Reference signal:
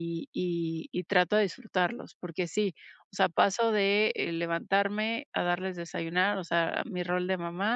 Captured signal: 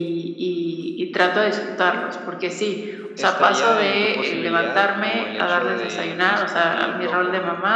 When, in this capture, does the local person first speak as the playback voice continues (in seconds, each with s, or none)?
3.2 s